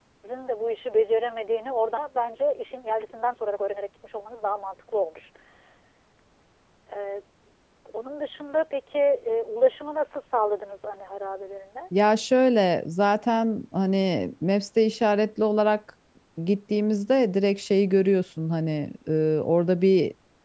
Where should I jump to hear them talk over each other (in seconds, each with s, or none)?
none